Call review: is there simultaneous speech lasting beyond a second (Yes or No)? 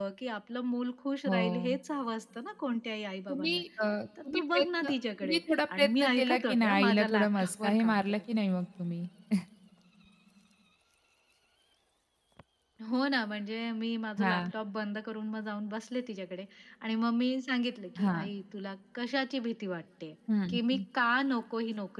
Yes